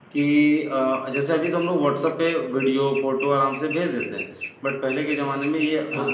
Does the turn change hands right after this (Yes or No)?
No